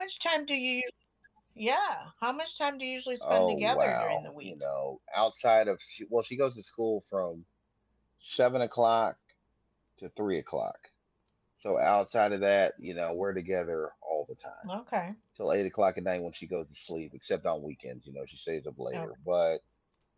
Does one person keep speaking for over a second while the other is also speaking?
Yes, from 3.2 s

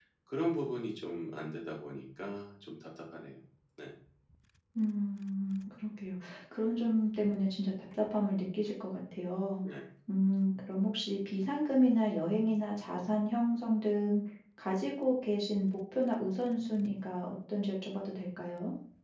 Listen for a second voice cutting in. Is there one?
No

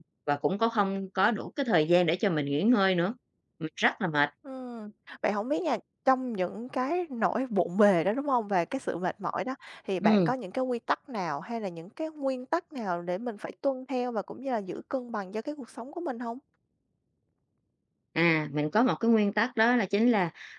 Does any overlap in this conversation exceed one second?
No

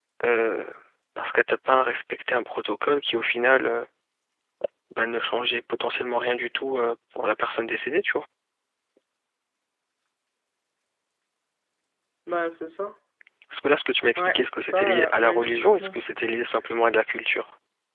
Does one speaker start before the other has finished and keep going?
Yes, from 14.2 s

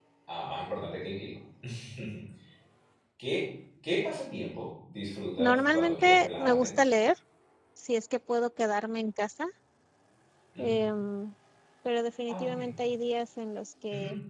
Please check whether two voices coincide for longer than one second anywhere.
Yes, from 5.4 s

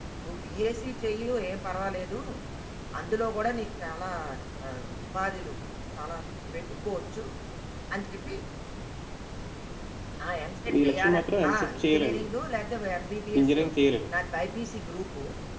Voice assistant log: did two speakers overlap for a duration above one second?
Yes, from 10.7 s

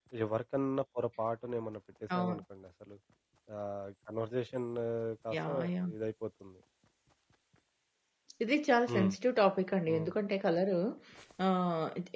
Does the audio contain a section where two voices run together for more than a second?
No

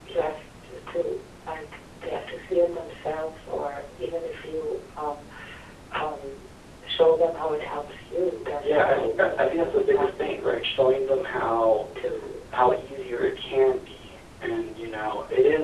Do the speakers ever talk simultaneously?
Yes, from 8.6 s

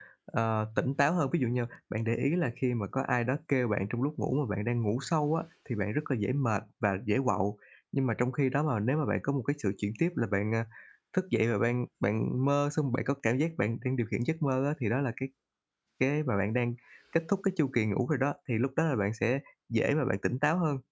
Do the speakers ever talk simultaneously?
No

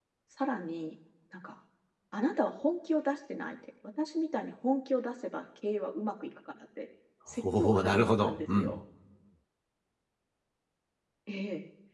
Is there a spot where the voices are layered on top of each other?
Yes, from 7.3 s

